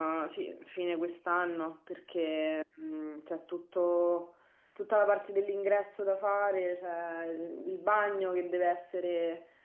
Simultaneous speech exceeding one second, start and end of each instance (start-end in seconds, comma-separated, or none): none